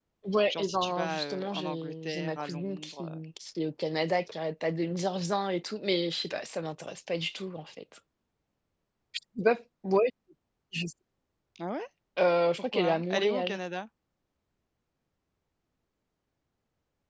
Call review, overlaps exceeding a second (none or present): present